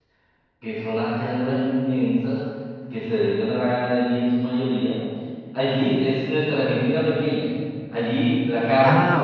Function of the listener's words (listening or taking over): listening